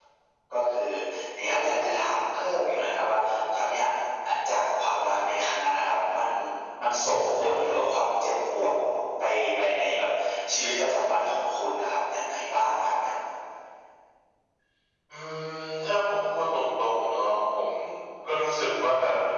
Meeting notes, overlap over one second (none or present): none